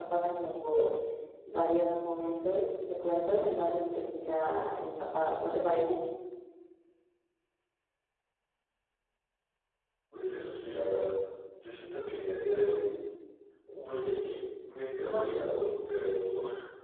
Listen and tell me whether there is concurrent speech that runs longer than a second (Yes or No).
No